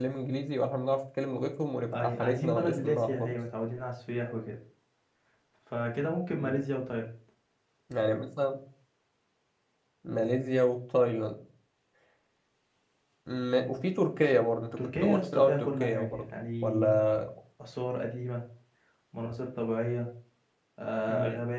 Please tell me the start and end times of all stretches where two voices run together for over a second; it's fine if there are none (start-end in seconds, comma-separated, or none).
1.9-3.4, 14.8-17.0